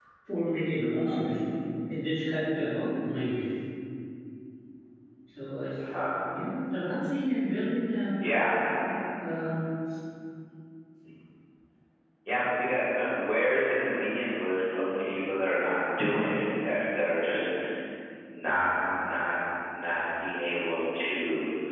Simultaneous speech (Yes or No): No